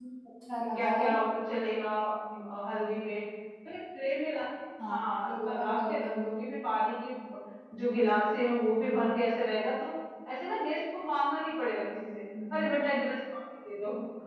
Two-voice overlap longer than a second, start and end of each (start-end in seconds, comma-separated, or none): 4.8-6.2